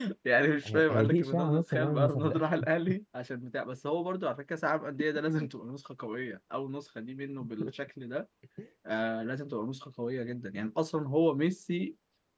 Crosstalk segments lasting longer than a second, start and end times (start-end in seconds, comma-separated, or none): 0.7-2.4